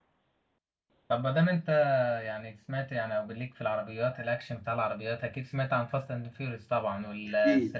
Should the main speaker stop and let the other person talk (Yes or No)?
Yes